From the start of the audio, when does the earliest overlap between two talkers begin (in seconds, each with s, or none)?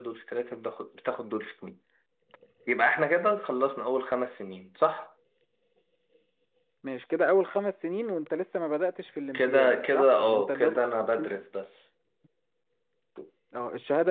9.3 s